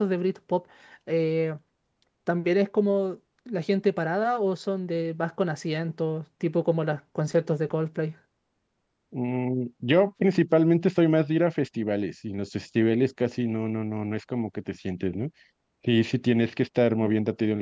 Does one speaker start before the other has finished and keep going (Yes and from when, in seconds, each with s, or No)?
No